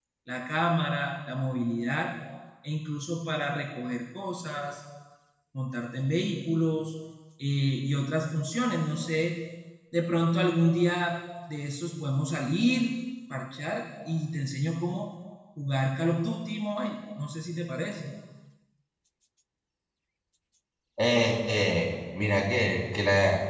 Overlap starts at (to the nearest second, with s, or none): none